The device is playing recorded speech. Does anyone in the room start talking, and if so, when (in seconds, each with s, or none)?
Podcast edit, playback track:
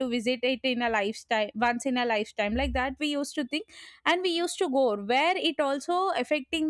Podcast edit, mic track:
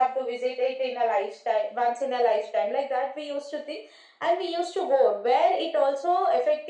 none